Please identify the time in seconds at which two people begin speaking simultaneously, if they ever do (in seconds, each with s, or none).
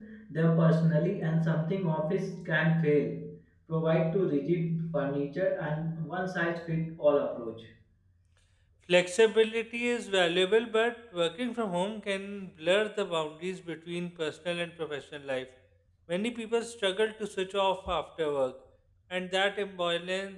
none